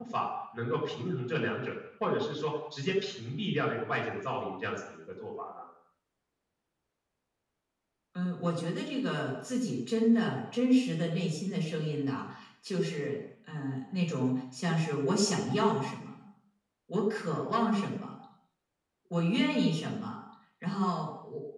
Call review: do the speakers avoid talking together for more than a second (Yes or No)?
Yes